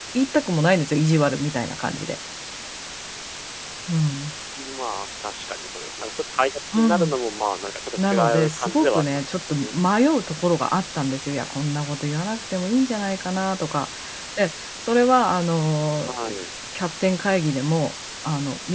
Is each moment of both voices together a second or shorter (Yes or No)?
No